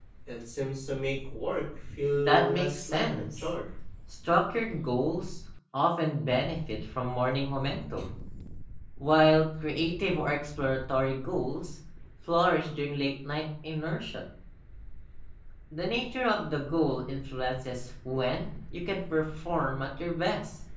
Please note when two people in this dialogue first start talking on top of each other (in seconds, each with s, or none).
2.1 s